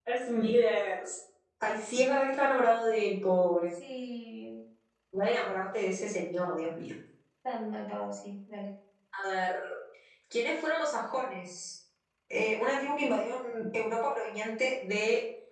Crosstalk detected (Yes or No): No